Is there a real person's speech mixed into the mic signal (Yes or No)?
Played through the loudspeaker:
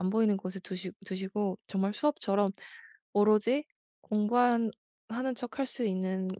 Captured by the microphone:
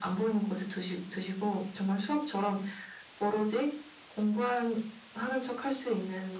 No